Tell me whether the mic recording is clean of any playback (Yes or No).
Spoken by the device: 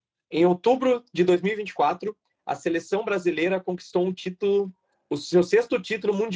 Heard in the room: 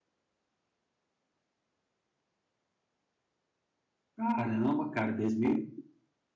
Yes